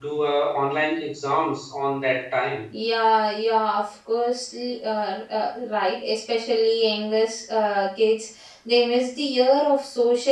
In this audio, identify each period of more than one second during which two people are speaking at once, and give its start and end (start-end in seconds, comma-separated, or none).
none